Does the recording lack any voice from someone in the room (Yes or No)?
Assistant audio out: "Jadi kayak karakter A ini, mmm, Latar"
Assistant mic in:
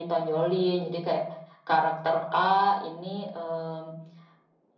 Yes